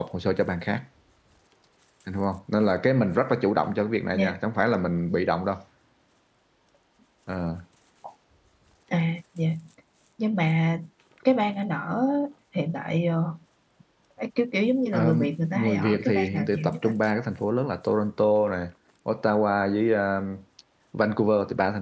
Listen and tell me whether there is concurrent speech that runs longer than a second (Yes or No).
Yes